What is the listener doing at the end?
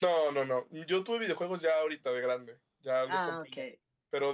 listening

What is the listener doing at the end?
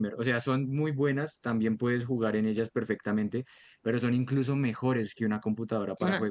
listening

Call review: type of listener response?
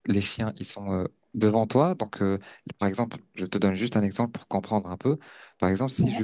listening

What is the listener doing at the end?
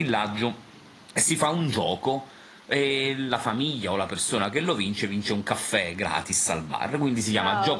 listening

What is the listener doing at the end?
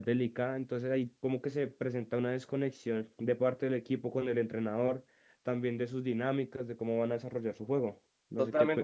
taking over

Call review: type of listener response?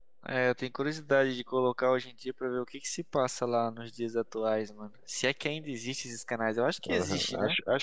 taking over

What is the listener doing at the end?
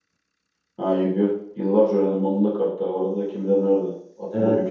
taking over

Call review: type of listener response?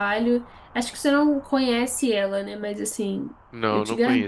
taking over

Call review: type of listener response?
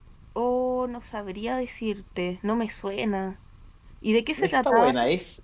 taking over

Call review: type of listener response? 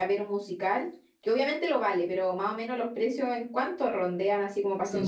taking over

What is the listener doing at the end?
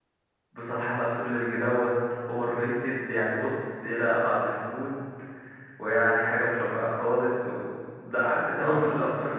listening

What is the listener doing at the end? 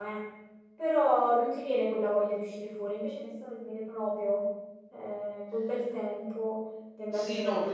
taking over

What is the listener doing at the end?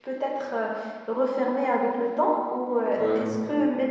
listening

